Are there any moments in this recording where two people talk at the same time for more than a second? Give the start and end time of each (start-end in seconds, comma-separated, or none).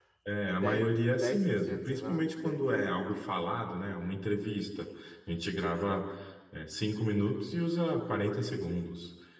0.6-2.6